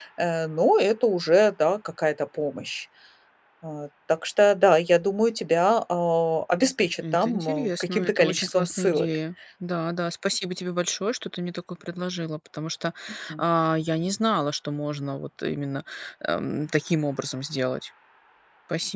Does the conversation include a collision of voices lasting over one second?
Yes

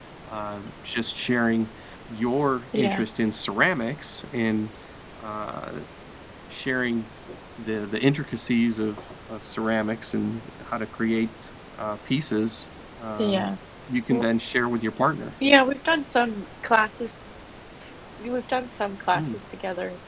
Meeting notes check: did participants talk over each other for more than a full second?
No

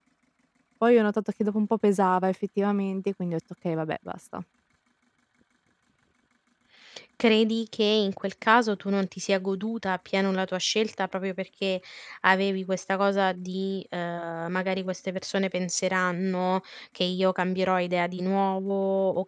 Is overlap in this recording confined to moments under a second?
Yes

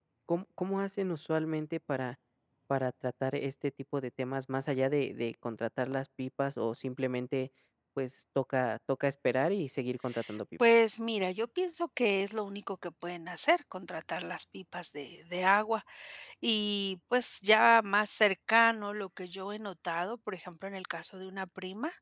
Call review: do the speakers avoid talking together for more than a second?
Yes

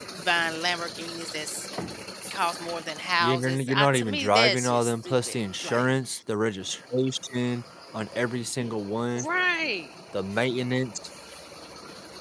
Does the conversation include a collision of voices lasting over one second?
Yes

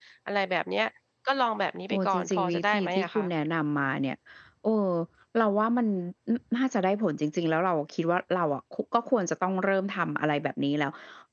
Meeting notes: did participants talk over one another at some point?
Yes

